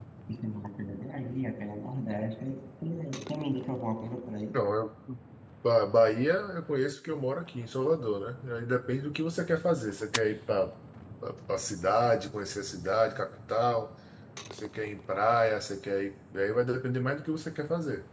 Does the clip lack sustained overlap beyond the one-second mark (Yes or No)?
Yes